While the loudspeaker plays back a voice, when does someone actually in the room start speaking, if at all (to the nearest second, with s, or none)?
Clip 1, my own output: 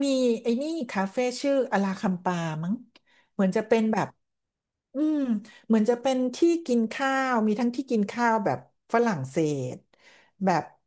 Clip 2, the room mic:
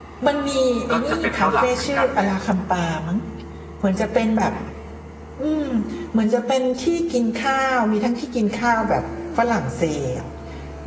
1 s